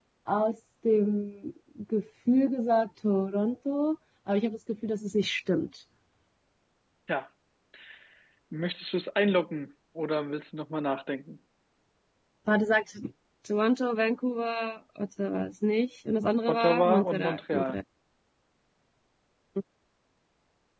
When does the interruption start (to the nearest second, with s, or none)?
16 s